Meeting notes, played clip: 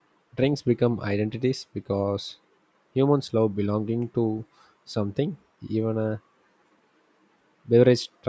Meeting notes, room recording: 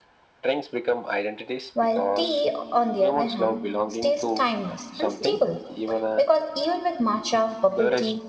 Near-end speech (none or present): present